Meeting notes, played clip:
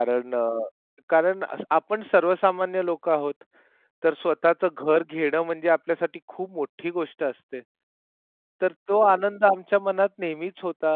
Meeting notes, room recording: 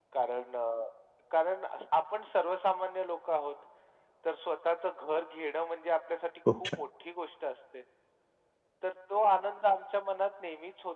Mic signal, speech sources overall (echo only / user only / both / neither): both